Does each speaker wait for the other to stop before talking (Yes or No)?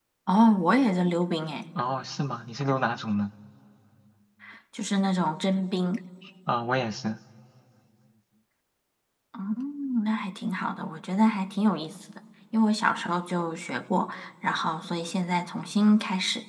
Yes